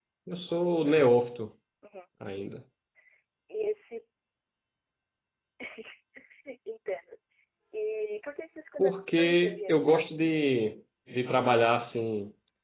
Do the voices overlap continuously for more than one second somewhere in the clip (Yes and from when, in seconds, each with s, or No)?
Yes, from 8.8 s